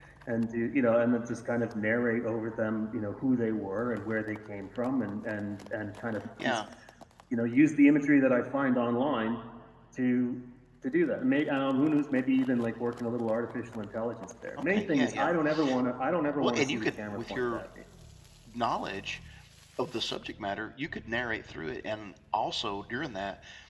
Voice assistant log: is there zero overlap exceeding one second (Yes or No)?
No